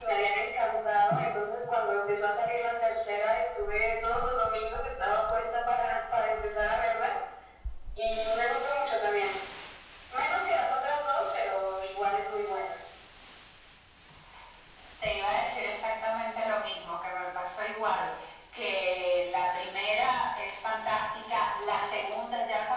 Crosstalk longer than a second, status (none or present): none